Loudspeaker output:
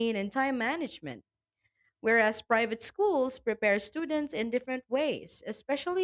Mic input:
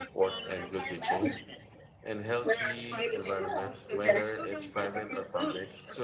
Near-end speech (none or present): present